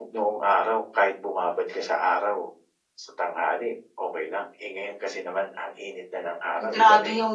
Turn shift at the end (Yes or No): Yes